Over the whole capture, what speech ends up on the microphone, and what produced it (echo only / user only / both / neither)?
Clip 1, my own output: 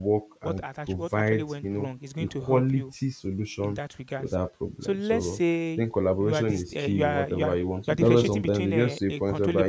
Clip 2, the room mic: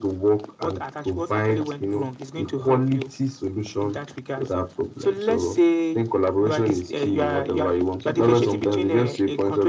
echo only